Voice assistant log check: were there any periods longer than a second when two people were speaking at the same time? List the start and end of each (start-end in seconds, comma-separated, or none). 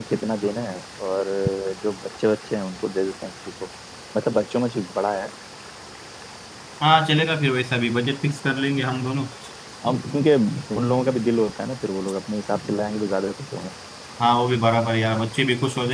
none